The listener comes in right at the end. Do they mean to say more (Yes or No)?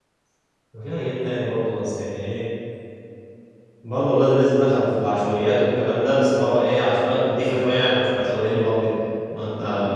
No